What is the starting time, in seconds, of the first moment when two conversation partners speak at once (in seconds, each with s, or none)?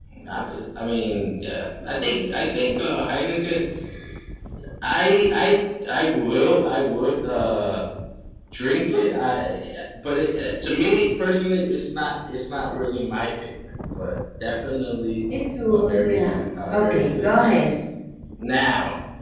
15.7 s